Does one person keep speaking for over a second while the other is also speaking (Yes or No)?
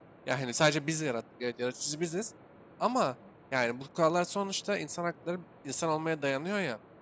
No